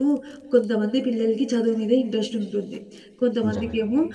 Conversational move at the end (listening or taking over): listening